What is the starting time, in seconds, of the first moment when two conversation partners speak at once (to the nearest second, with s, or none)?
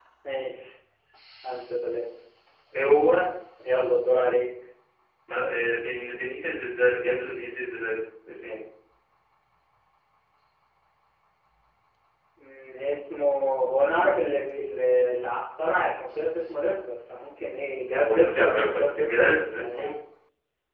18 s